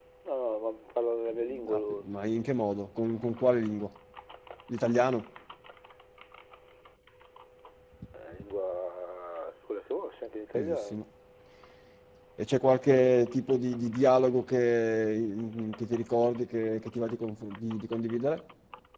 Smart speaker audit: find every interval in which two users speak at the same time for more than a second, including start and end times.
none

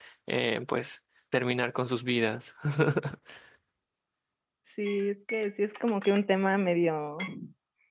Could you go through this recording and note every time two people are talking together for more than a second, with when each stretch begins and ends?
none

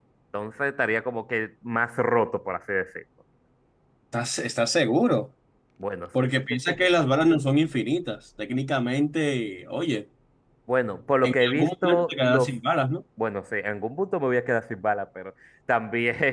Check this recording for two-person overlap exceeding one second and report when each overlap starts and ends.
11.2-12.6

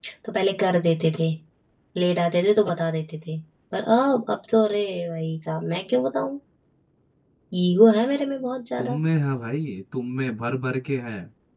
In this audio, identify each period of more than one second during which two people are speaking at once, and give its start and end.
none

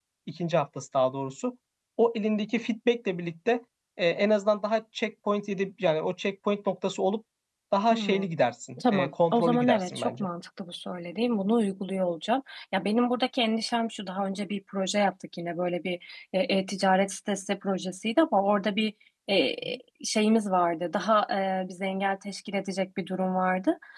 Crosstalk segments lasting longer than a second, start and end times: 8.8-10.3

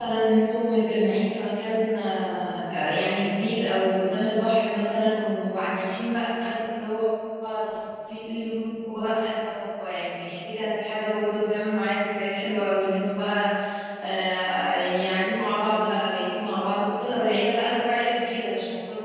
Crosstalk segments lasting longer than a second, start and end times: none

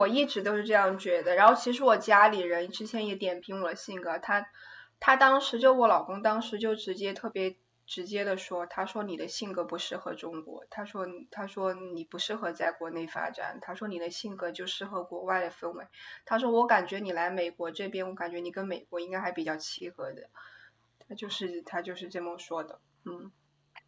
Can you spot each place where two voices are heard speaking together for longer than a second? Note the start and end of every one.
none

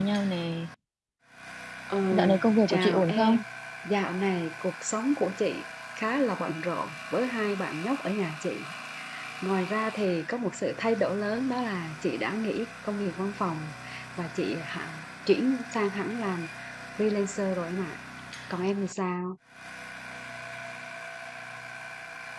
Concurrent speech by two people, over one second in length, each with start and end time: 2.1-3.4

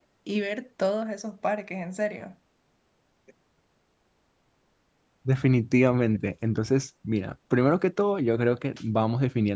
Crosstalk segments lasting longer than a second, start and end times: none

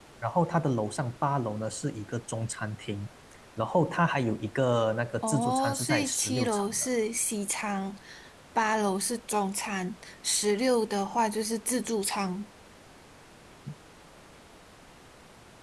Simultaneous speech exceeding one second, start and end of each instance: 5.2-6.9

